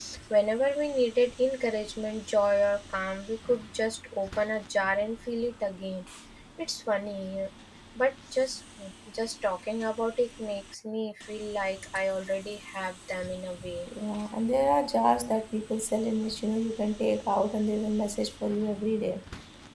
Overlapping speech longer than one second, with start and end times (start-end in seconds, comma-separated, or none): none